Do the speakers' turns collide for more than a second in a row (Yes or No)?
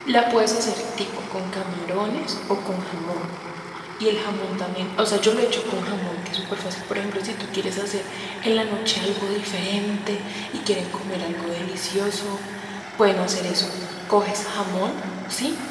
No